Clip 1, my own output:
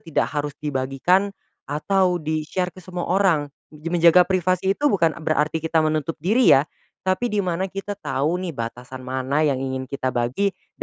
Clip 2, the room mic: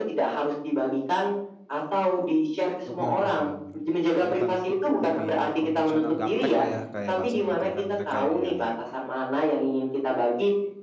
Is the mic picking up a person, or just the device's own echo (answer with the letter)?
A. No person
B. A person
B